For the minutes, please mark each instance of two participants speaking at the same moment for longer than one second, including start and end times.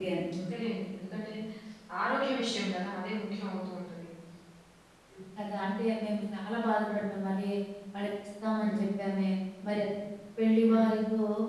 none

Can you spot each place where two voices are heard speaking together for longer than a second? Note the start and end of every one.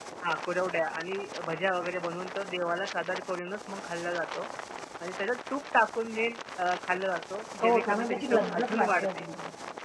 7.6-9.2

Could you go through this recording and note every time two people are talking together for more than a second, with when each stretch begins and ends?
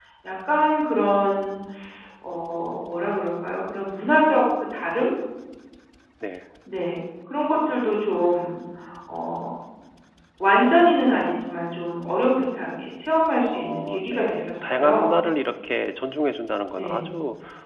13.5-15.1

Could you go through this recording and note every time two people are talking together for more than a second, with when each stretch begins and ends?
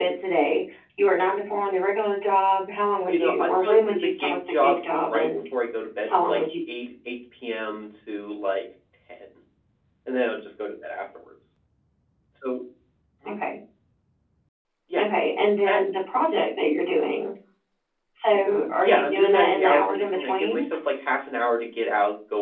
3.1-5.3, 18.5-20.6

